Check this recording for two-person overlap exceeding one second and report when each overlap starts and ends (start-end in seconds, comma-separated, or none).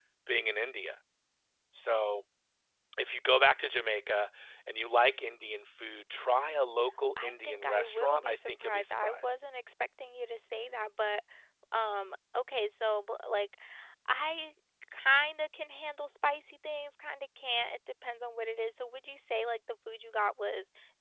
7.2-9.3